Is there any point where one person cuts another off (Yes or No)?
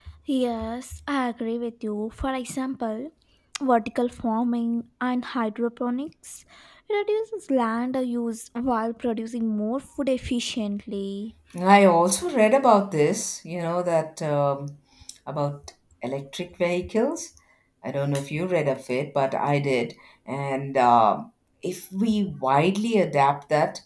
No